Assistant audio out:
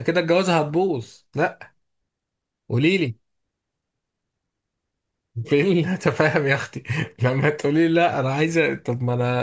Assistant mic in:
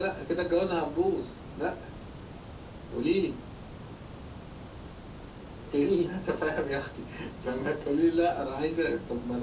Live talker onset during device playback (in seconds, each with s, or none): none